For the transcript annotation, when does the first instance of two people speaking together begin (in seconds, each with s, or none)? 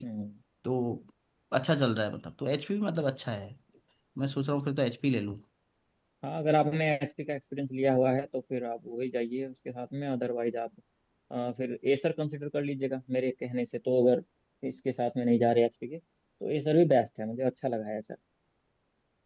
none